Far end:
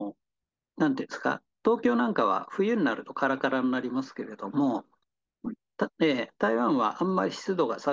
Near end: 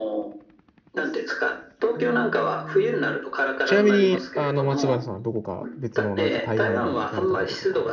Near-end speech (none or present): present